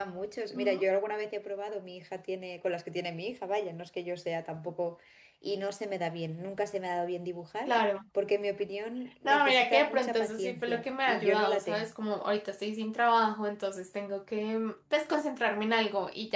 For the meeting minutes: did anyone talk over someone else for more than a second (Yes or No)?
Yes